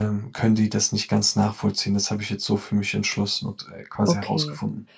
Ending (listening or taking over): taking over